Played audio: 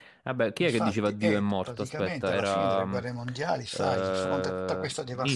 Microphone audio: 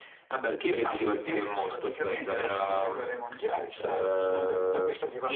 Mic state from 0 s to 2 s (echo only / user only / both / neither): echo only